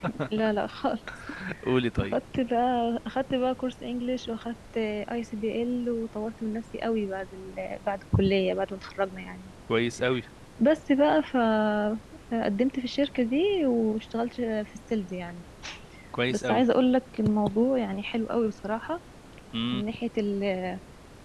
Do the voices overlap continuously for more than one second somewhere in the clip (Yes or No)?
No